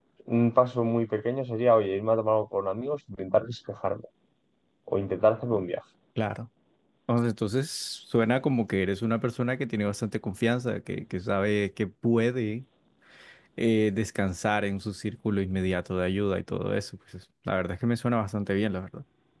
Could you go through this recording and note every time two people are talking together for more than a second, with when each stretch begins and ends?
none

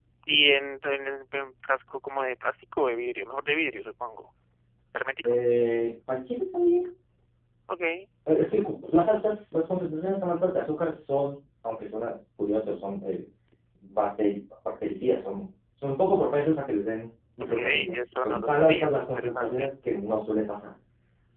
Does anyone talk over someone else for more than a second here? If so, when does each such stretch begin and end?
17.5-19.7

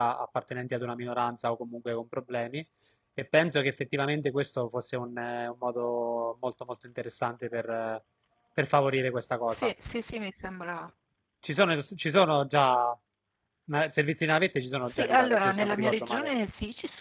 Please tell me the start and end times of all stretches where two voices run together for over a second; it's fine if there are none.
14.8-16.3

